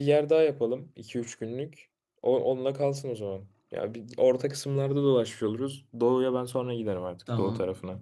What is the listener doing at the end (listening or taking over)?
taking over